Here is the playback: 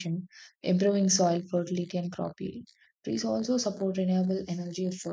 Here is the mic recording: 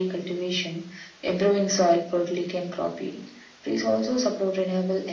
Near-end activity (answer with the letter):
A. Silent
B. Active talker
A